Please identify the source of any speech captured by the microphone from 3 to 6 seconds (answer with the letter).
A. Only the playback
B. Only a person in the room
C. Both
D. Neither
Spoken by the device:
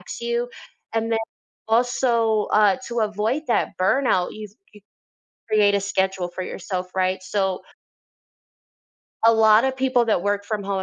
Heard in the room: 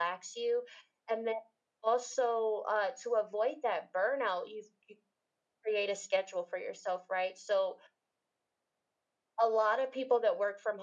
A